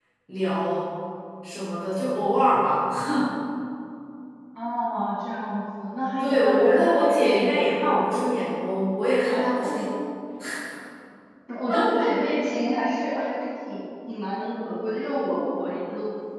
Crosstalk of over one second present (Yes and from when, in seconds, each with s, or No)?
Yes, from 6.2 s